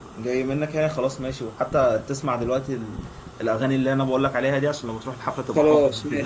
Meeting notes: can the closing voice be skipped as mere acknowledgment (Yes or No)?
No